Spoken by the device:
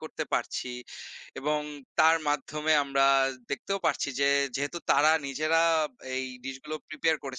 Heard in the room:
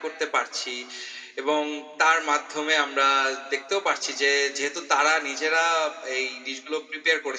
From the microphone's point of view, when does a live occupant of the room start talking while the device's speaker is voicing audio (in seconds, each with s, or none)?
none